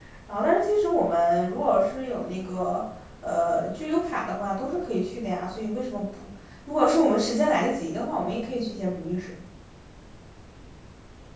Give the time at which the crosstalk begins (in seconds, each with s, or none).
none